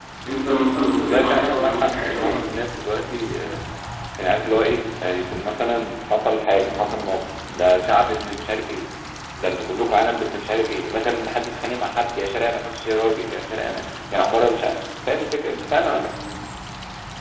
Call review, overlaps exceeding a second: present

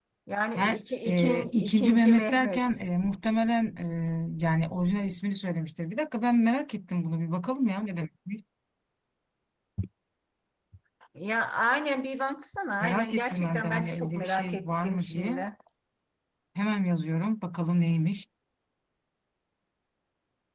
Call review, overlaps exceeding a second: present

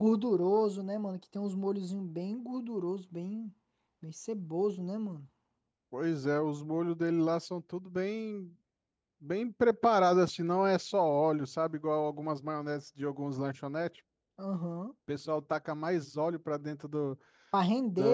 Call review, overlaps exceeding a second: none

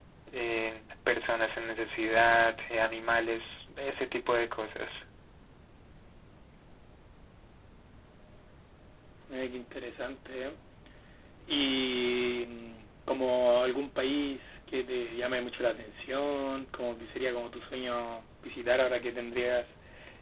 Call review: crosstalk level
none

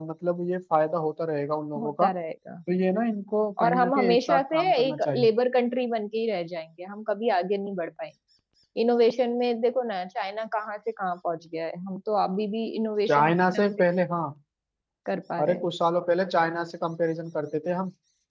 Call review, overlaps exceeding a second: present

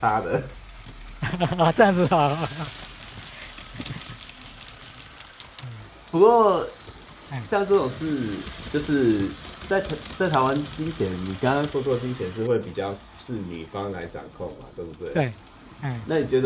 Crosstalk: none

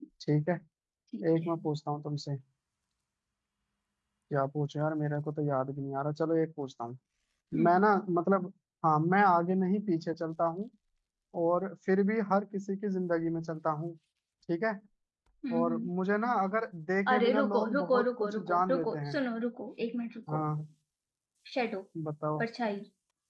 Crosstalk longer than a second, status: present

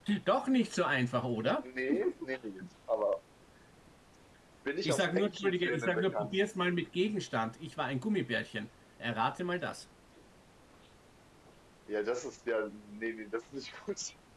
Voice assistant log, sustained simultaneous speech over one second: present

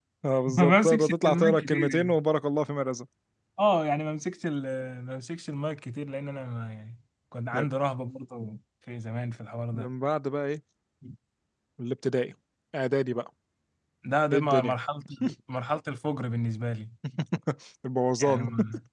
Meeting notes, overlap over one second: present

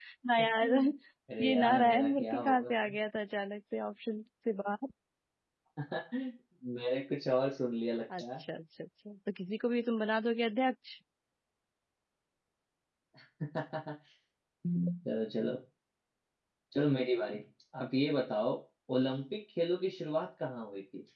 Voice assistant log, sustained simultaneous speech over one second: present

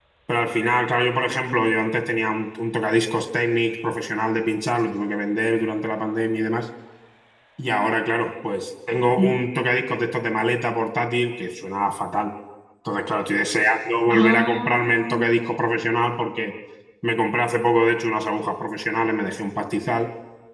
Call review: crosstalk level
present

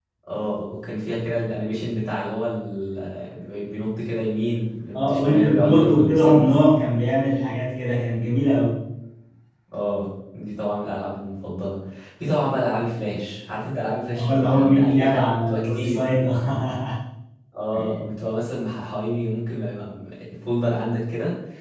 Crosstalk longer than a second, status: present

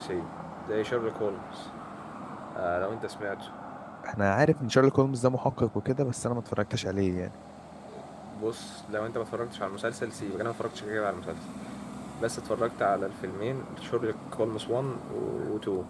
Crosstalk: none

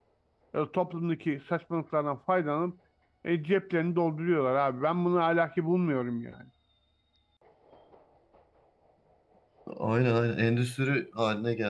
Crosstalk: none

